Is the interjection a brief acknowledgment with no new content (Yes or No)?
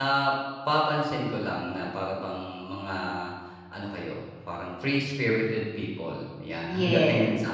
Yes